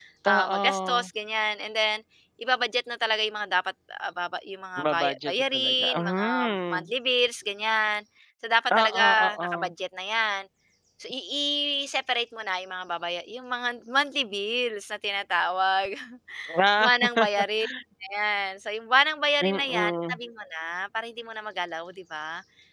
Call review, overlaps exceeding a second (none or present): present